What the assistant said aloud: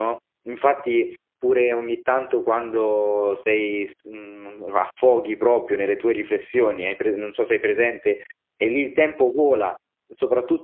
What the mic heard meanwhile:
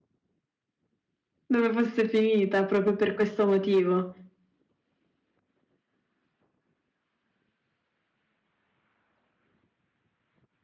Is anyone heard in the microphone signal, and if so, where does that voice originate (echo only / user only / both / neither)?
user only